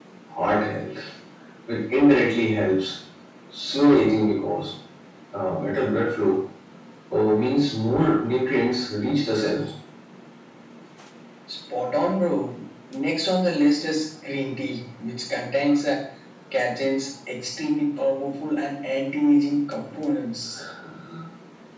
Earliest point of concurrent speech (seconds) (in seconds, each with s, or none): none